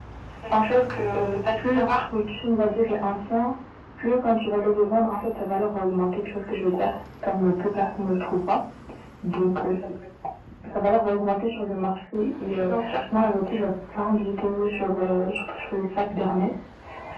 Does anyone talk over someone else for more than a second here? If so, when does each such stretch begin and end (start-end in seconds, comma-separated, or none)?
0.5-2.0